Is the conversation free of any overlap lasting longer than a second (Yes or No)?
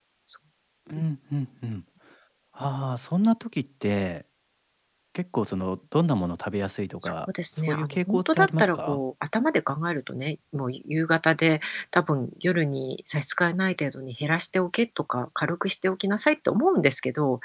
No